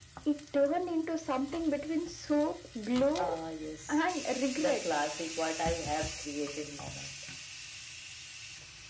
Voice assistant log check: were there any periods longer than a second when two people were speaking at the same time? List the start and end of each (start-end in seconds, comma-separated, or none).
none